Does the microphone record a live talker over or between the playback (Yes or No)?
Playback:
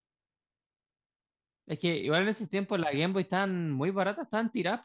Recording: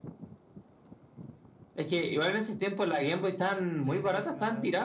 Yes